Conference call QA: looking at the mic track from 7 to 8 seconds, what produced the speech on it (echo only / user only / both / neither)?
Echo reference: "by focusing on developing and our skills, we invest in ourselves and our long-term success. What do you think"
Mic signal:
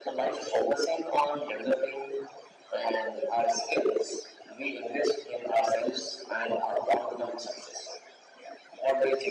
echo only